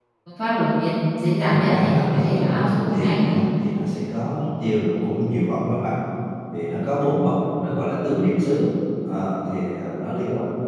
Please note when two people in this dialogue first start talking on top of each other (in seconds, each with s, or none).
1.5 s